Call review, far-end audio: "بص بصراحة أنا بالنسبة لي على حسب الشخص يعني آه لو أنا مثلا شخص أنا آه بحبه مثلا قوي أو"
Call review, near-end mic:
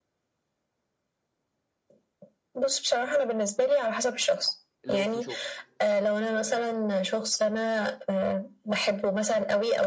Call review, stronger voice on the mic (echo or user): echo